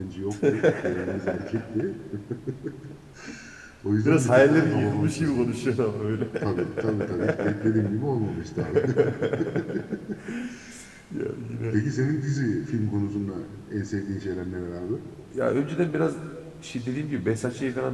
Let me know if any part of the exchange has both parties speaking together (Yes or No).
Yes